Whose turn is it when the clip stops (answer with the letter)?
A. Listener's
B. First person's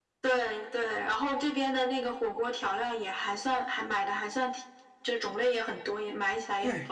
A